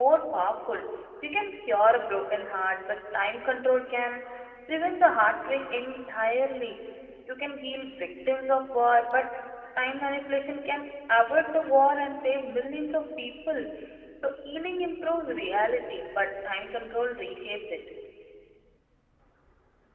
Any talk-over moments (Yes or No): No